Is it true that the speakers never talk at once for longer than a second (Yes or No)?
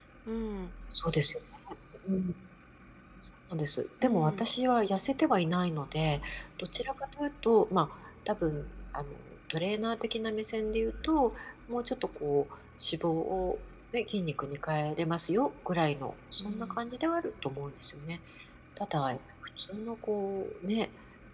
Yes